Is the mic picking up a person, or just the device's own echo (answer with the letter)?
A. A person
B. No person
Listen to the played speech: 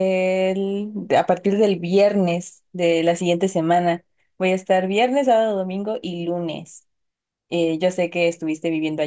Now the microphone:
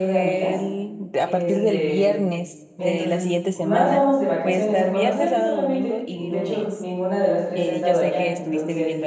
A